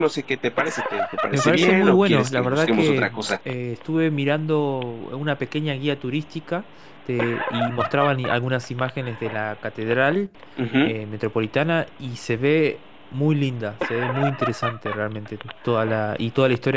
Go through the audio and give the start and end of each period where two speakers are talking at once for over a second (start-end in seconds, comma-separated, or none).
1.3-3.2